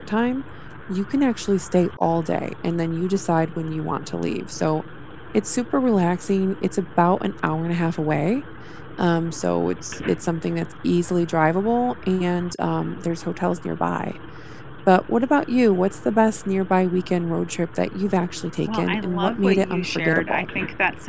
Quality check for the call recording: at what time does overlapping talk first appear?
19 s

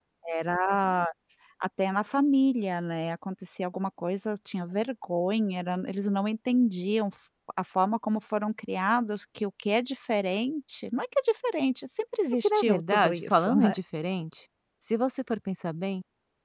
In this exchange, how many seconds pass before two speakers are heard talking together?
12 s

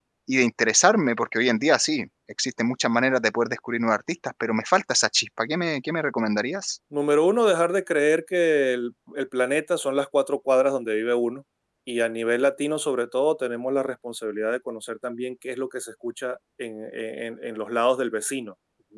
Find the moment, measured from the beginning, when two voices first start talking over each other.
none

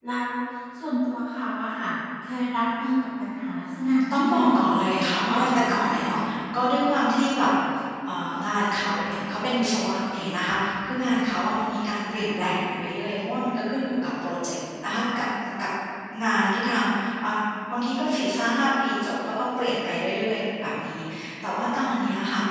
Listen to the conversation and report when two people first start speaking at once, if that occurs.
4 s

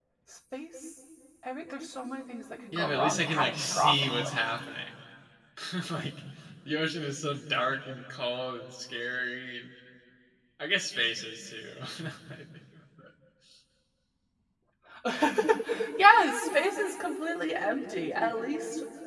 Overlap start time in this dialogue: 3 s

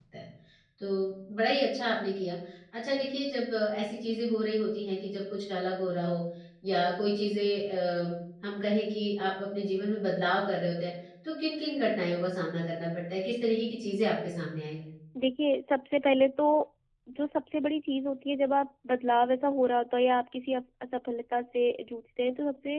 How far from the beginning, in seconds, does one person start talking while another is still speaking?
none

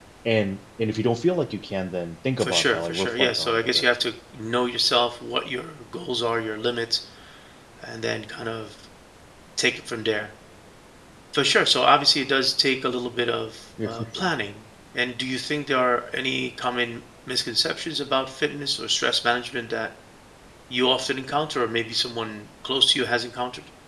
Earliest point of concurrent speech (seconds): 2 s

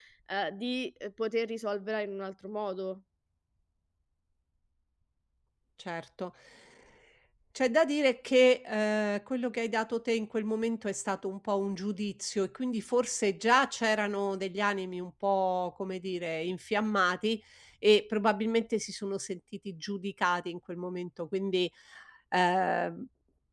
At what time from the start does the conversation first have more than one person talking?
none

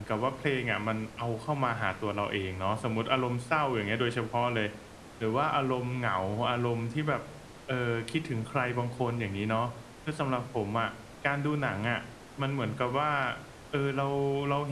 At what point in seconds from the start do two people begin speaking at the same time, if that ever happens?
none

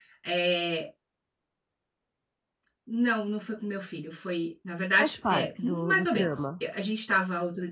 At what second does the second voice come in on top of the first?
5 s

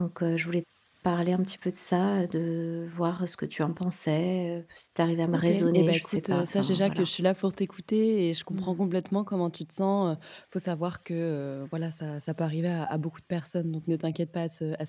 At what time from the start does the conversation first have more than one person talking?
5 s

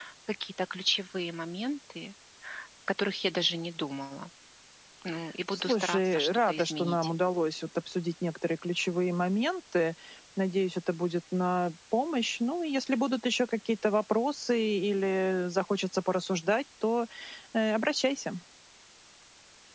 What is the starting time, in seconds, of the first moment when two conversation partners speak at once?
6 s

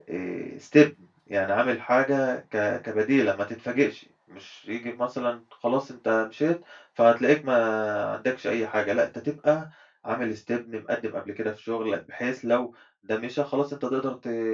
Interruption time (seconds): none

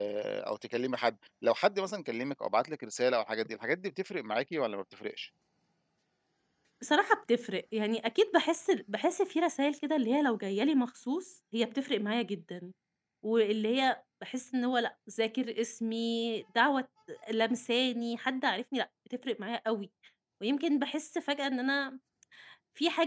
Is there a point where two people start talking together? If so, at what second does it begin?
none

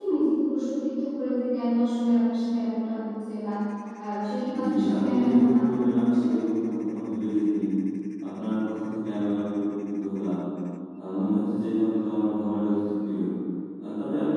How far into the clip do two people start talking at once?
5 s

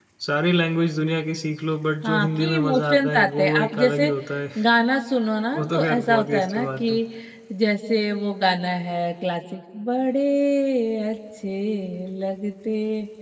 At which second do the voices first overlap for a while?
2 s

